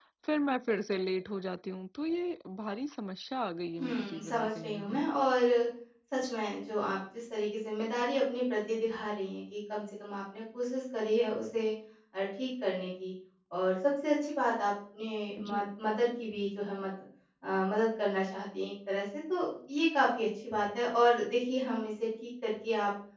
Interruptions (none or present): present